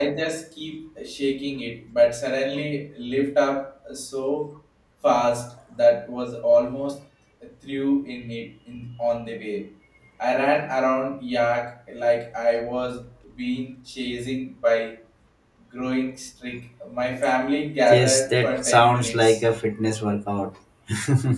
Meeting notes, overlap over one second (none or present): present